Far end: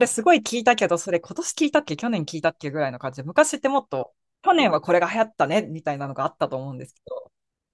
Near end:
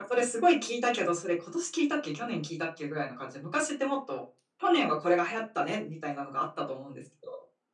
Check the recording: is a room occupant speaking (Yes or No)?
No